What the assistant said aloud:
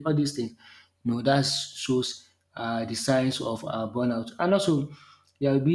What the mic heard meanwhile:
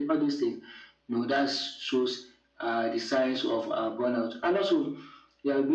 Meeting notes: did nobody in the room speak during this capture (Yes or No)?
Yes